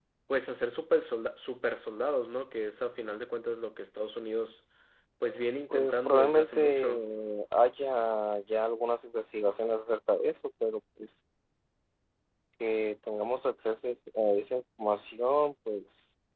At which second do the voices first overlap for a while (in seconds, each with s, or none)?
5.7 s